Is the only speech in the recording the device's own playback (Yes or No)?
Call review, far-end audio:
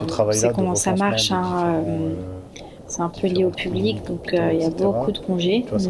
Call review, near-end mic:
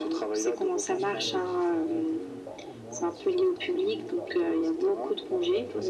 No